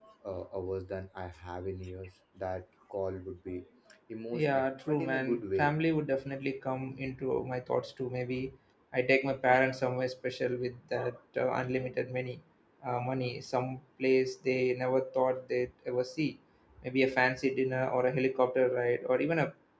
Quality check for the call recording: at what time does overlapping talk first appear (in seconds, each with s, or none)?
4.3 s